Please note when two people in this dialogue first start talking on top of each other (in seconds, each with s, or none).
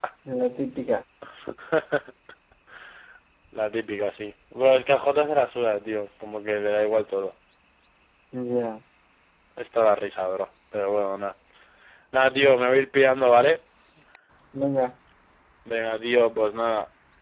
none